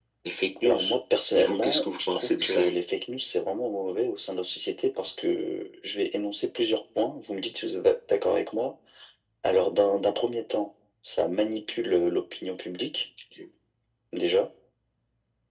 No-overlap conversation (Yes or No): No